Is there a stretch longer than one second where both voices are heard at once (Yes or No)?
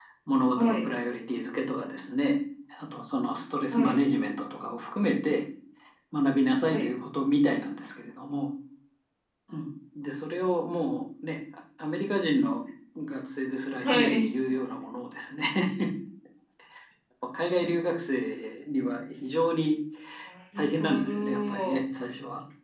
Yes